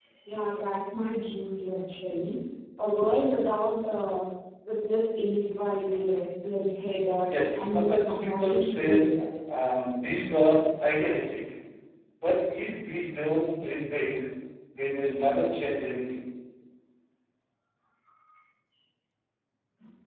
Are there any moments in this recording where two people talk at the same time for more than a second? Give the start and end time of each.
7.3-9.1

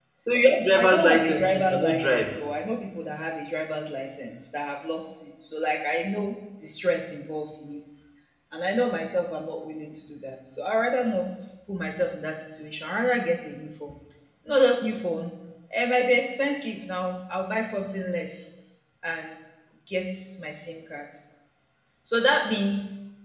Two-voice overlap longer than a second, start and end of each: 0.8-2.4

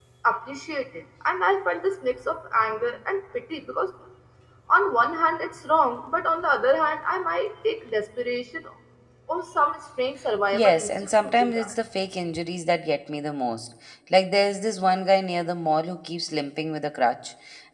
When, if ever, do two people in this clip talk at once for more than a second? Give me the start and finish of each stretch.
10.5-11.7

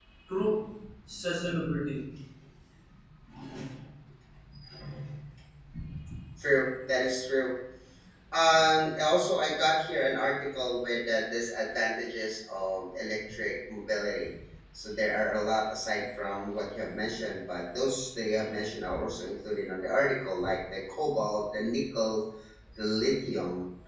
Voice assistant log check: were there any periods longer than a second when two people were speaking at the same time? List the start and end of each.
none

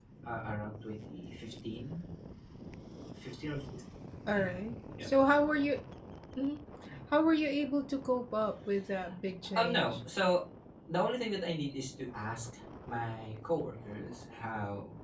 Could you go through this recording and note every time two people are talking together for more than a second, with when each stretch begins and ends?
none

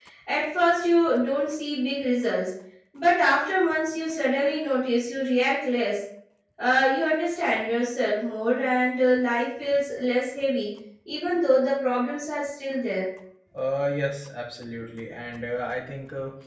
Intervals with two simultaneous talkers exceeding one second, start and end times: none

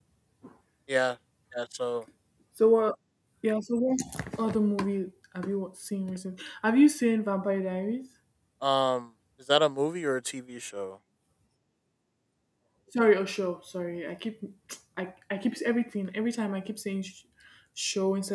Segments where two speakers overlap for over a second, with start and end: none

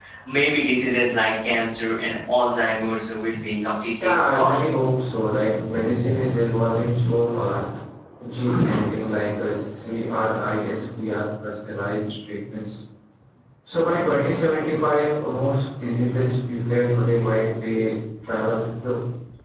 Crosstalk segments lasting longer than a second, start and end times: none

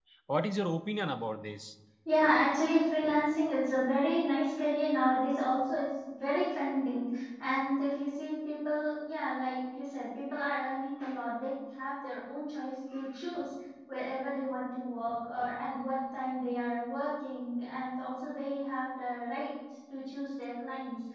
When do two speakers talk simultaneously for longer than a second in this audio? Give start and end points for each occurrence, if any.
none

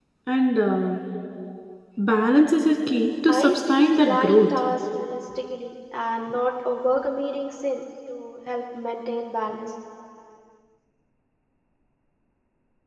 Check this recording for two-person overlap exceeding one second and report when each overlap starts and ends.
3.3-4.5

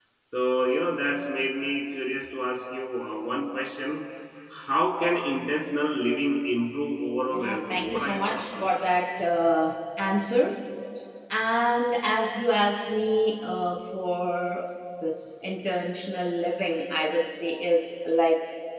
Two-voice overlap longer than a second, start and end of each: 7.3-8.8

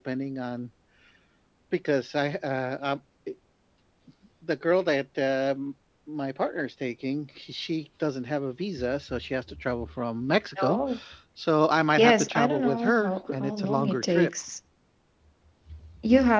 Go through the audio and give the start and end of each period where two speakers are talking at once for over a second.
11.9-14.3

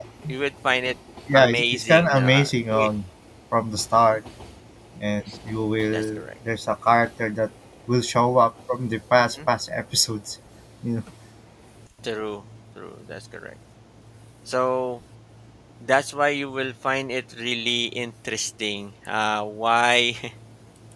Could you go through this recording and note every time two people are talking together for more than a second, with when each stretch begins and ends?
1.3-2.9

